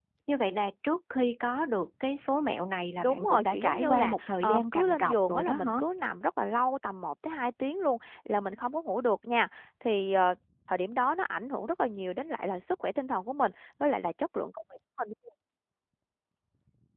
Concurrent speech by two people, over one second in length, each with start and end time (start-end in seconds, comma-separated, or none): 3.0-5.8